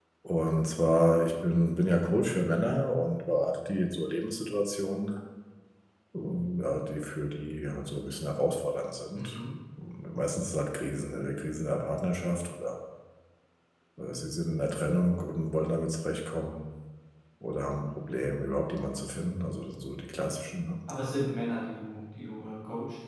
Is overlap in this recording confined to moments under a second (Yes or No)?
Yes